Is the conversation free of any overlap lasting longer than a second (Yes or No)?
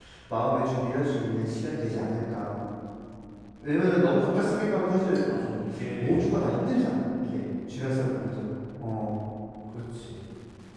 Yes